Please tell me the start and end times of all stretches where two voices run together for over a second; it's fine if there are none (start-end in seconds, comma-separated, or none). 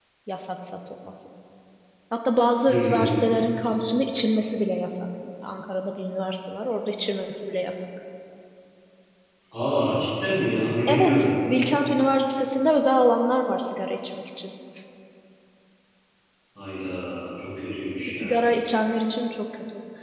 none